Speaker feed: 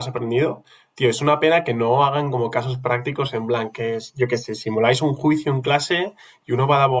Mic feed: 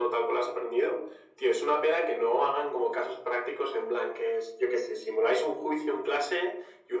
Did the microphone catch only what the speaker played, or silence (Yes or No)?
Yes